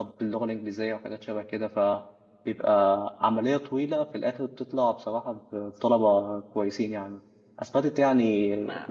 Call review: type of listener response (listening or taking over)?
listening